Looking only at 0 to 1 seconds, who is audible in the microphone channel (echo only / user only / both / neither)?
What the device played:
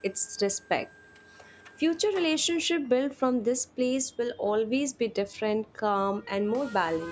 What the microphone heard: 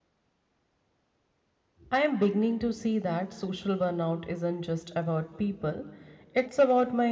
neither